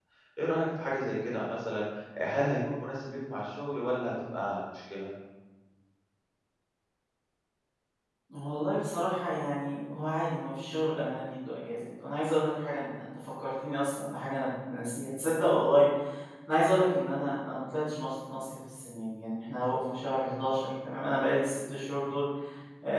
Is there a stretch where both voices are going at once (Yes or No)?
No